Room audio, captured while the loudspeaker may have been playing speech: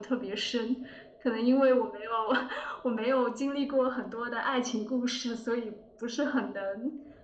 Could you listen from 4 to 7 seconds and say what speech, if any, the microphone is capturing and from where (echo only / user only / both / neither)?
echo only